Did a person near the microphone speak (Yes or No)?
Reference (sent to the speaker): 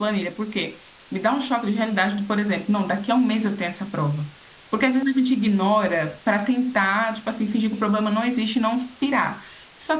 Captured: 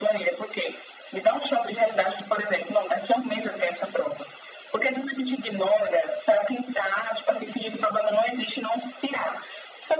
No